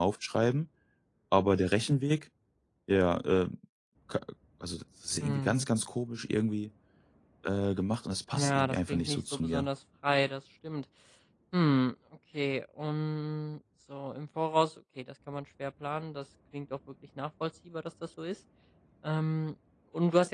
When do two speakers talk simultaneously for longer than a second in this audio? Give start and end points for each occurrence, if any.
8.3-9.7

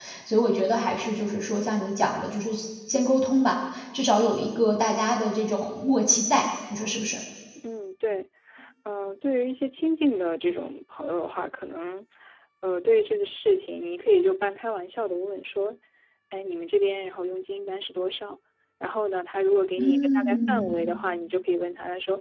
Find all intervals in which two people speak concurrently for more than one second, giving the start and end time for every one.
19.8-21.0

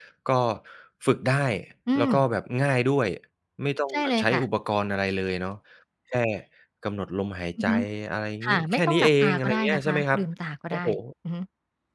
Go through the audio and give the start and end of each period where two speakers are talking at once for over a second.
8.4-10.2

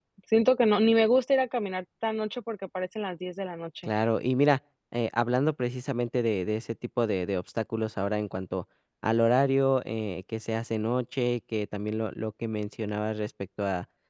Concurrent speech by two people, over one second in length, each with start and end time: none

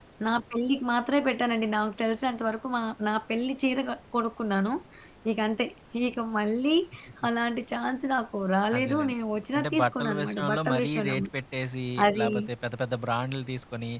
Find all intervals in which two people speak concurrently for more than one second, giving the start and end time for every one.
9.6-11.3

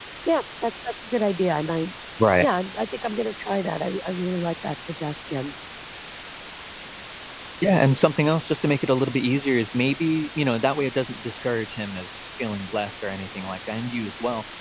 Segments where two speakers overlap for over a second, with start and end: none

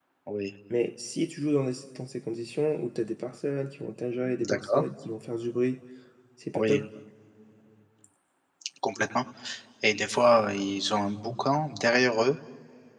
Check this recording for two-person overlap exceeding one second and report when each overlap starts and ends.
none

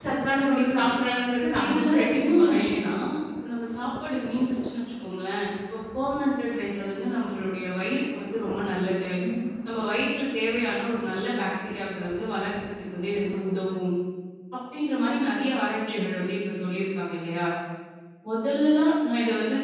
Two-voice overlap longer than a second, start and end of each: 1.6-2.9

